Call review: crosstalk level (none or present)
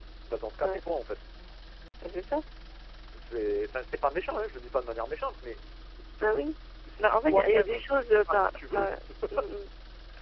present